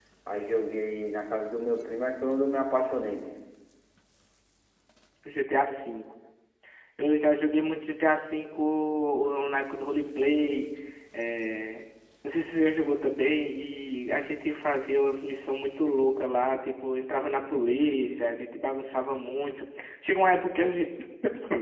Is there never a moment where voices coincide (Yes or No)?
Yes